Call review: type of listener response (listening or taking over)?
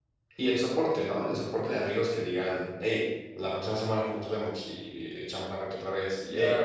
taking over